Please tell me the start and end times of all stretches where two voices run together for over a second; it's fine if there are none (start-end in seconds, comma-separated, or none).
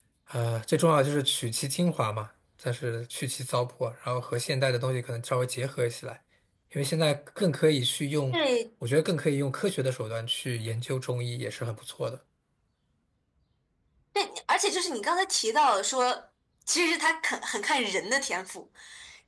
none